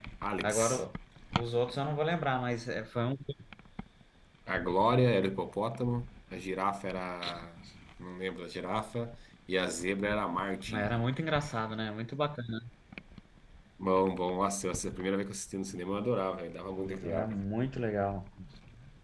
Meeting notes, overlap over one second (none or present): none